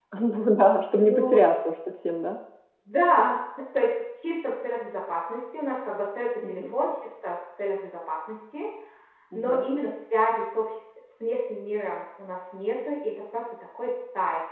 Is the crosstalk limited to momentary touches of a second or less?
Yes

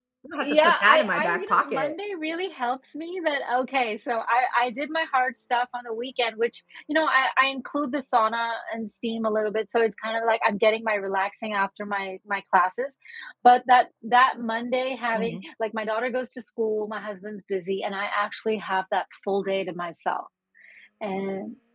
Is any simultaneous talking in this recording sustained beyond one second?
Yes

